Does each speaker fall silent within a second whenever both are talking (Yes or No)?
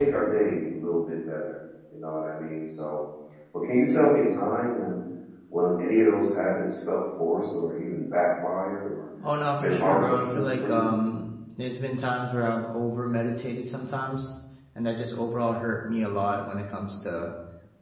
No